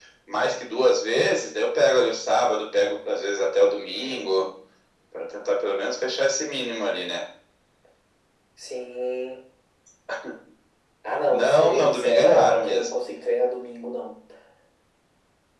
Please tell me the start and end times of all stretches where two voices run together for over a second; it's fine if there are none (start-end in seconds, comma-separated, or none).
11.3-12.9